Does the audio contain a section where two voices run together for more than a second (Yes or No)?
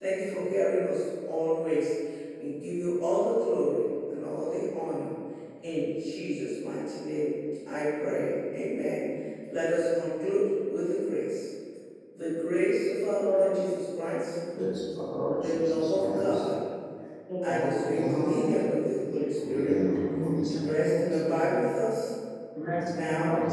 Yes